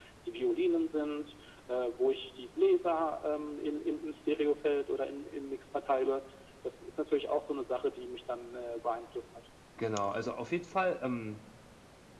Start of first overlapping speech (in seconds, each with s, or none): none